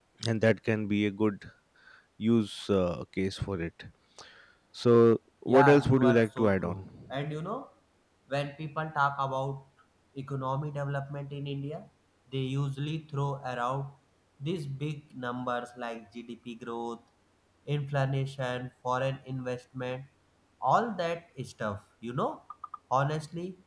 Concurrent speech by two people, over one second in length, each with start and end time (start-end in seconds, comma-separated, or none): 5.5-6.8